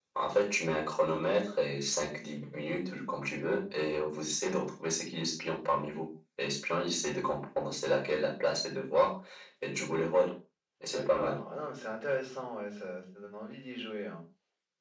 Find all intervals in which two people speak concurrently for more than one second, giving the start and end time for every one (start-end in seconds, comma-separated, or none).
none